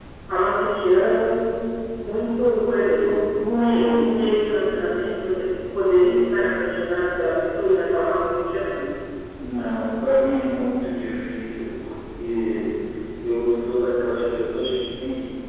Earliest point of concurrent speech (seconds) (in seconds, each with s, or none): none